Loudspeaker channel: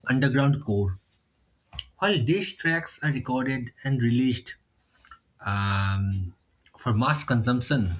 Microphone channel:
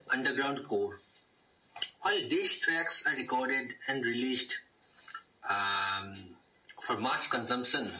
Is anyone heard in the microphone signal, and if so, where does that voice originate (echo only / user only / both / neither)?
echo only